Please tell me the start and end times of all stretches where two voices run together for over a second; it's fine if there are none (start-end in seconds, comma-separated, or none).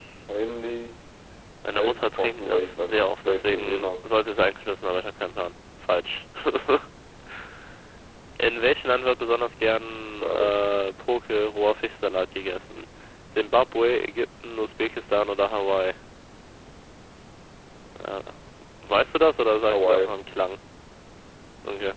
1.7-3.8